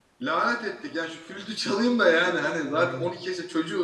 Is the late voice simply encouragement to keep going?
Yes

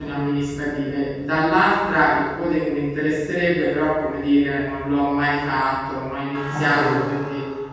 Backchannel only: Yes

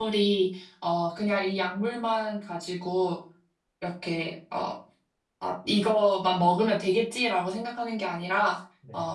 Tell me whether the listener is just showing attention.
Yes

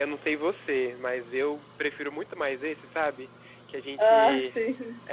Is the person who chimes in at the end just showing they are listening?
Yes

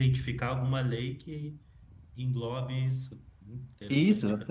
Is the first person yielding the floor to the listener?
Yes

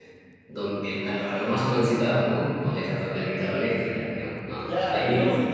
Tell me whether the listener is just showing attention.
No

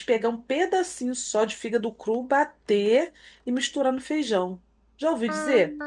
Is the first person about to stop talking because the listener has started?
Yes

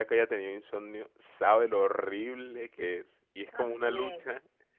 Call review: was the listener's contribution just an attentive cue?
Yes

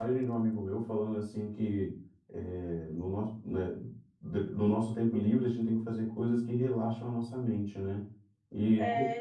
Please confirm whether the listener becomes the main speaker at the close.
No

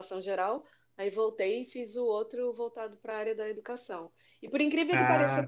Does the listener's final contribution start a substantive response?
No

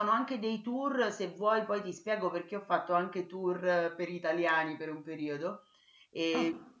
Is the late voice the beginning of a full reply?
No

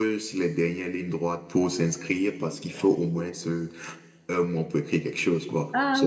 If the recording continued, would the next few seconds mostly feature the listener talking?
Yes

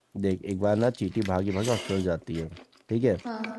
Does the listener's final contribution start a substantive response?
No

